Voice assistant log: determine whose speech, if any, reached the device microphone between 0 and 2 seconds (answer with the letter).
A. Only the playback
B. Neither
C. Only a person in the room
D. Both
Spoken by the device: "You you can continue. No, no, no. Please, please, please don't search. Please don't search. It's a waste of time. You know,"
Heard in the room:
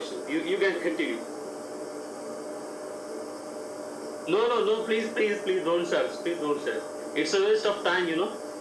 A